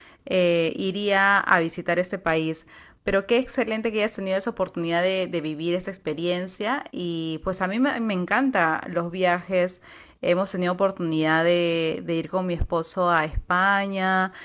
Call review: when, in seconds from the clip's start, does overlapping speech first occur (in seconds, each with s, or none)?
none